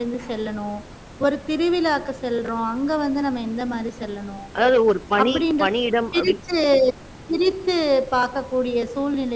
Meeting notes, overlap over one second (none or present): none